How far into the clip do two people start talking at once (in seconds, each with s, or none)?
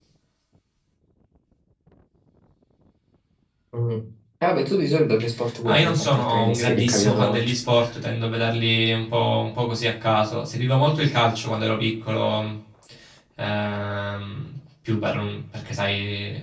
5.6 s